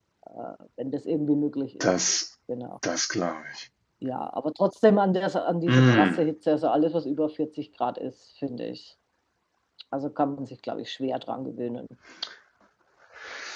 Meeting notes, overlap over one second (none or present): none